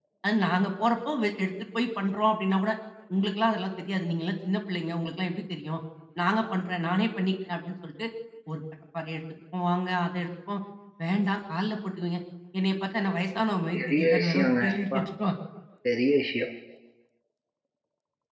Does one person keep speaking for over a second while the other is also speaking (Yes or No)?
Yes